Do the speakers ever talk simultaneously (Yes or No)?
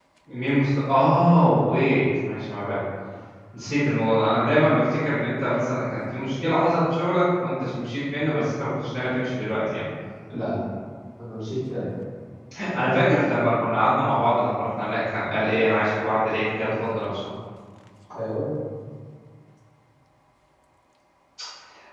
No